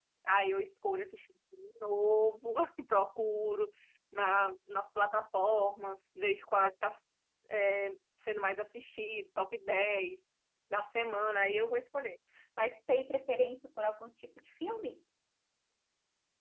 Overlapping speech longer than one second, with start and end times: none

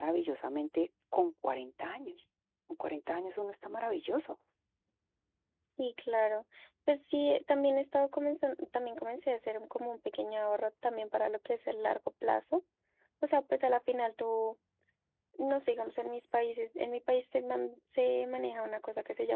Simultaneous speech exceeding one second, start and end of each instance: none

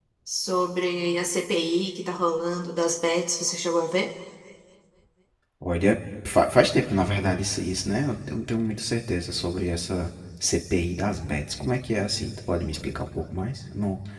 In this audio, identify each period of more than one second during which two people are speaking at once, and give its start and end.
none

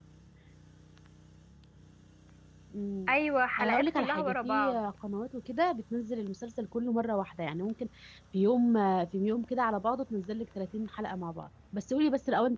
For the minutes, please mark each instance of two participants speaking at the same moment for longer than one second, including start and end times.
3.6-4.8

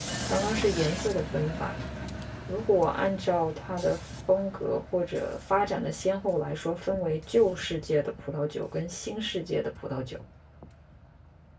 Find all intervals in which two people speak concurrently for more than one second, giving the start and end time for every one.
none

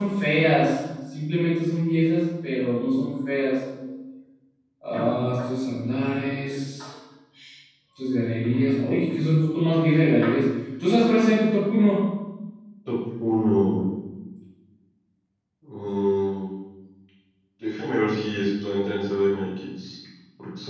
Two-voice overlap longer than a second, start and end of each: none

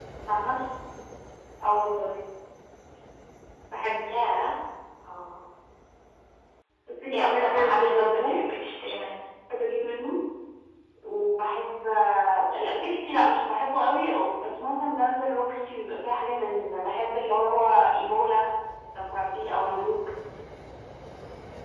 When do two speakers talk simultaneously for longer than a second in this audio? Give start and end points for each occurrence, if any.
7.1-8.4

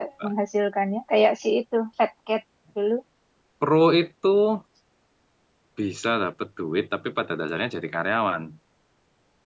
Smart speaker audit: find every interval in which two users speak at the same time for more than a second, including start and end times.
none

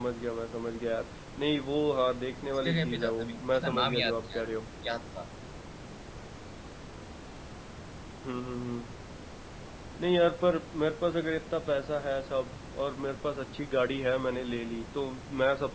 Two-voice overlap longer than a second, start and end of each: 2.6-4.5

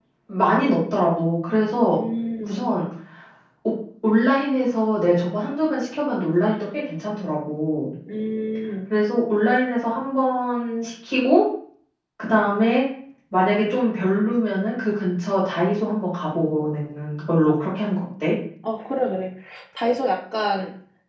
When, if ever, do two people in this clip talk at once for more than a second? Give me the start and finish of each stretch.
none

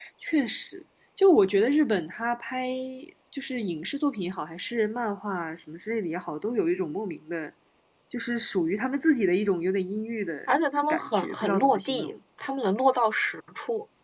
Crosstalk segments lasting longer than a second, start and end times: 10.9-12.1

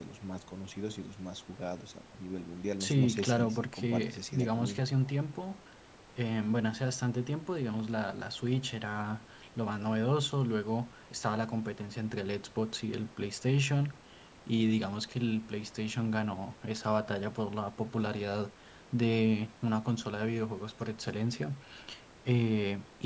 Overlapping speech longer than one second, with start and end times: 2.8-4.8

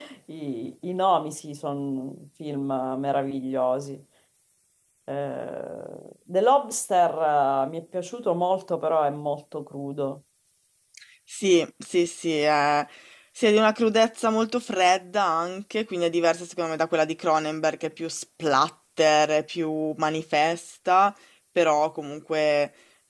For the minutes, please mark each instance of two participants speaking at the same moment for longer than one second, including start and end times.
none

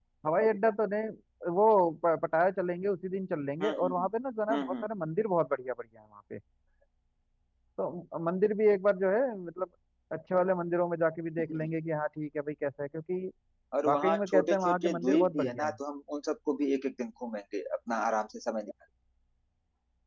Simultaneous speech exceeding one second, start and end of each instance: 13.8-15.8

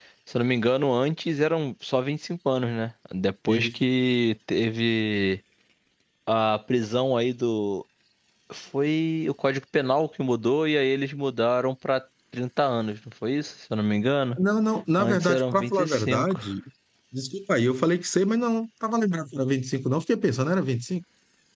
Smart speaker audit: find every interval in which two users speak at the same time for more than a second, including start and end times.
15.0-16.4

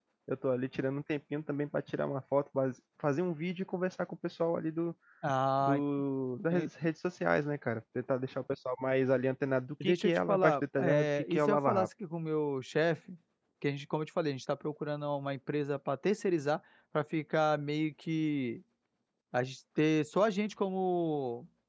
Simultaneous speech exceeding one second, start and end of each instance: 9.8-11.9

